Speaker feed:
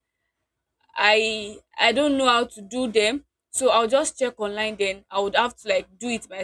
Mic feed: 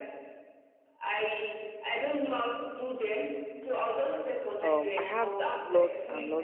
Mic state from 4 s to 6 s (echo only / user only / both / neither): both